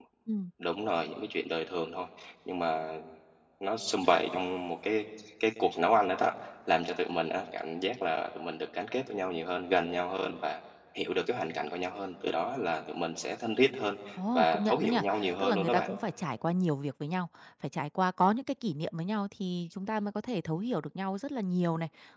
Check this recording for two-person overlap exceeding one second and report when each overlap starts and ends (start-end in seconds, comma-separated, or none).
14.3-15.8